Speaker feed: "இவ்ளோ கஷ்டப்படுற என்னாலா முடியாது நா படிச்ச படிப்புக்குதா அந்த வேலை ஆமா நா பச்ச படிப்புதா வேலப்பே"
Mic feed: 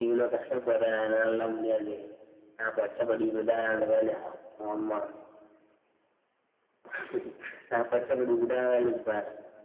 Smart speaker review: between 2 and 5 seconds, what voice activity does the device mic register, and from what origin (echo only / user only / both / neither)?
echo only